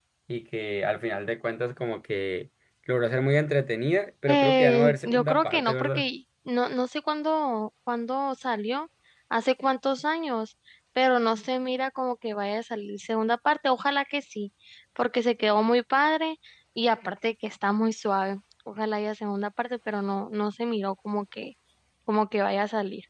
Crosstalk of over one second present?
Yes, from 4.3 s

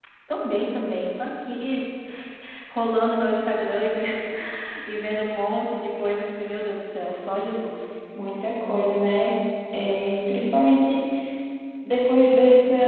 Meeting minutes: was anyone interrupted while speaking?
No

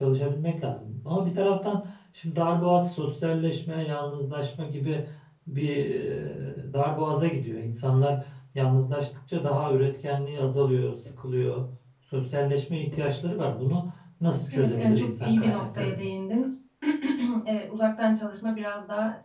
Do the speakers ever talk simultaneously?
Yes, from 14.5 s

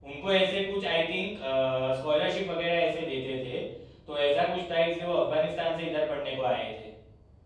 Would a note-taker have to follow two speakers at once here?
No

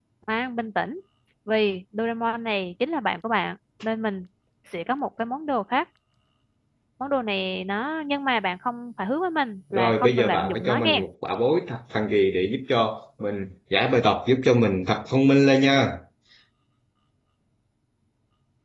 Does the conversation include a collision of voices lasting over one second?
Yes, from 9.7 s

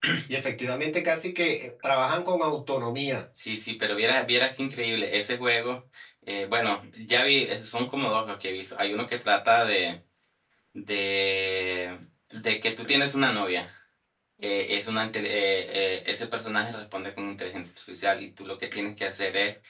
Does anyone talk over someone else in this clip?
No

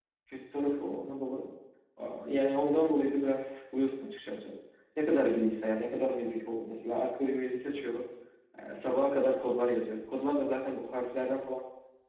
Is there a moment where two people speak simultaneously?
No

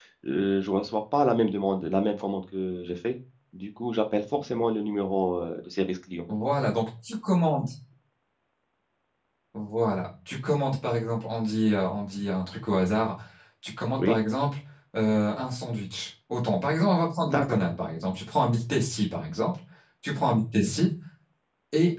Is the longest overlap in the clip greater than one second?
No

